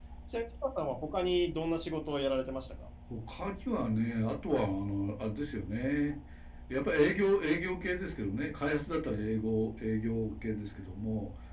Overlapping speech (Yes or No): No